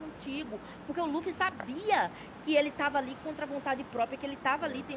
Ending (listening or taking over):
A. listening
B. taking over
A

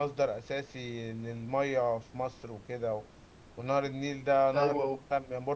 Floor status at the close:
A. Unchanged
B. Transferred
A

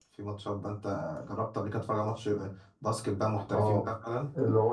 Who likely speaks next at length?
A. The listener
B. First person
A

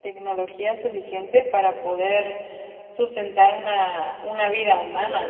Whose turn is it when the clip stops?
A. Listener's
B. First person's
A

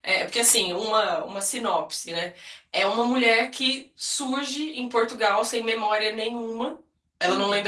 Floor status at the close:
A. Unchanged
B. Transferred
A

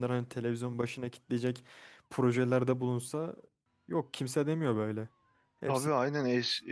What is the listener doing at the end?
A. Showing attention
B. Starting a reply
B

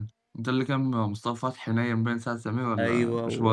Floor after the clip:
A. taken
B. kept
A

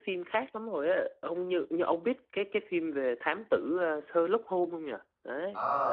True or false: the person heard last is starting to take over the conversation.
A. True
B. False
A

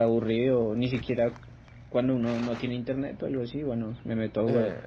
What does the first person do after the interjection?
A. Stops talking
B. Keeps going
A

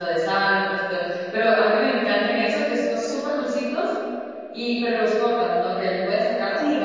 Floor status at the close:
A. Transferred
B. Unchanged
A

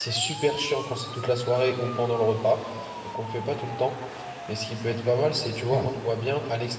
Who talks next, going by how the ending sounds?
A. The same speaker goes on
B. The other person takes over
A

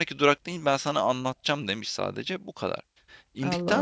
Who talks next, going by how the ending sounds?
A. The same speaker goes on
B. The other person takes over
A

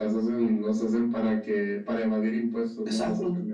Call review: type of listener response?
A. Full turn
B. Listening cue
A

